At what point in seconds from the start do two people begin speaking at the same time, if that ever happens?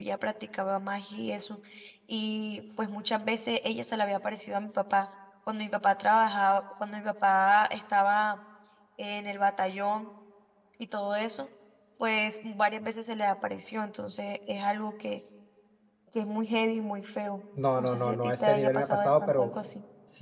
18 s

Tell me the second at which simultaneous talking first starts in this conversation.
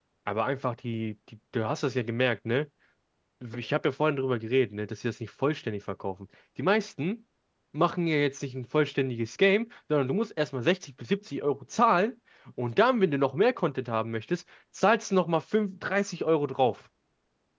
none

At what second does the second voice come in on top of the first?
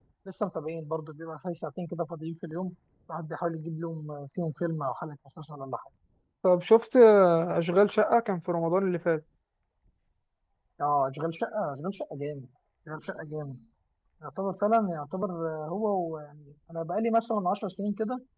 none

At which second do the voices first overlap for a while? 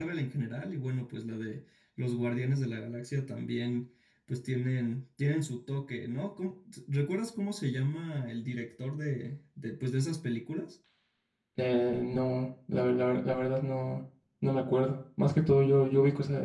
none

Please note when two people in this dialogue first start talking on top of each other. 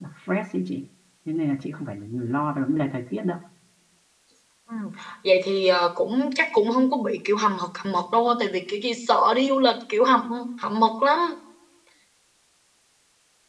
none

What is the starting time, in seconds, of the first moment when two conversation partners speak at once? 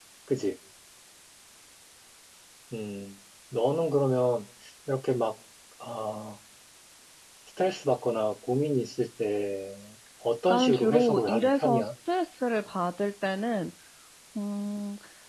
10 s

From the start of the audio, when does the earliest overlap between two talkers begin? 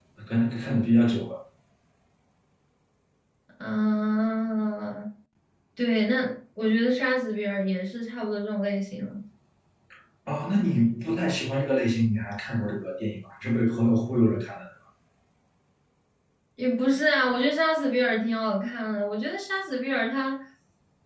none

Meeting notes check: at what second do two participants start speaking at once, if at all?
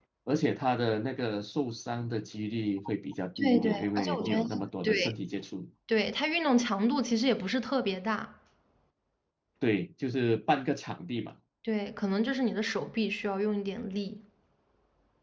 3 s

